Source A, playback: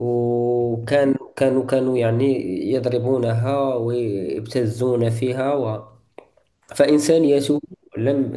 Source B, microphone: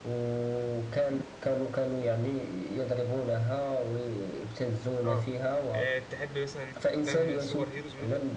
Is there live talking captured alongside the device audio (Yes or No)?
Yes